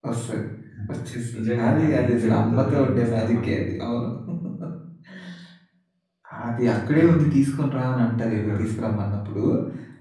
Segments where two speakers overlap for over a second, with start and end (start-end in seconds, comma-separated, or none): 1.3-3.8